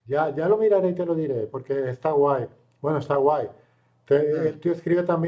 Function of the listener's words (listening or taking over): listening